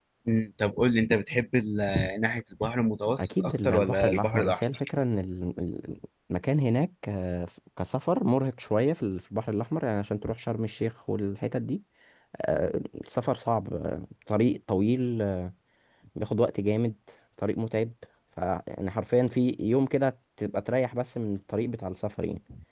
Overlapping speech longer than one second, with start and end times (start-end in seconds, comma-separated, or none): 3.2-4.6